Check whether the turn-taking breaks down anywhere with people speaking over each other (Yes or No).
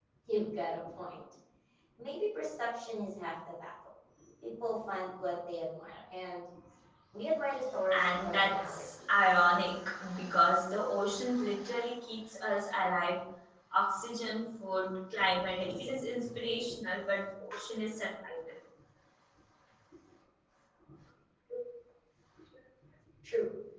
Yes